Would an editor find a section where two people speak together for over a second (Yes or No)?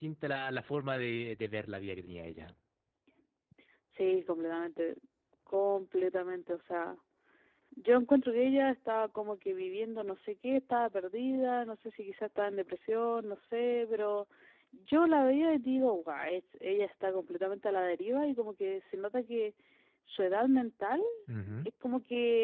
No